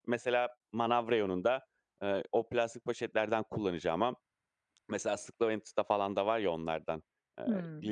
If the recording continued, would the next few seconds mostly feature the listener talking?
No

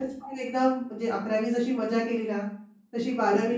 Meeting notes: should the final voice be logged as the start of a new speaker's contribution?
No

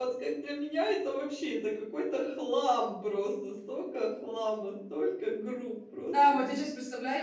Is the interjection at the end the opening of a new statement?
Yes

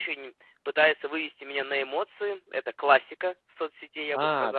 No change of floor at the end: No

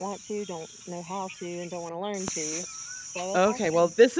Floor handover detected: Yes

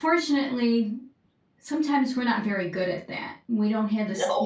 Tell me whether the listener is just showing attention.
Yes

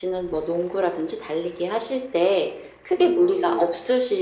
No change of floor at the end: Yes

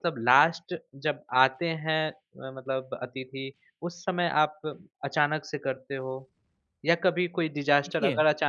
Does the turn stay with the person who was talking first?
Yes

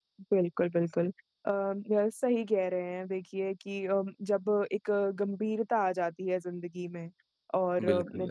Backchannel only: Yes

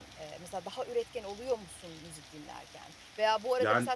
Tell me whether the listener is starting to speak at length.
No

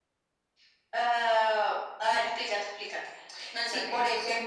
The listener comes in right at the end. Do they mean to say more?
Yes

